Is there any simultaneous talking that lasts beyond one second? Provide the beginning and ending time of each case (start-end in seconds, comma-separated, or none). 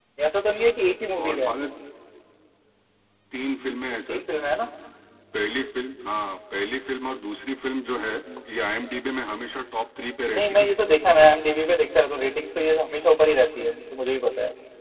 none